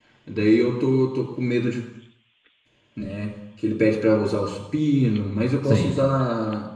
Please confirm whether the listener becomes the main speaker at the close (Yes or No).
No